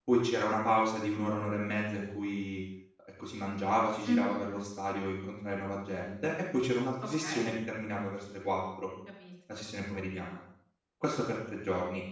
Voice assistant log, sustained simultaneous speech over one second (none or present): none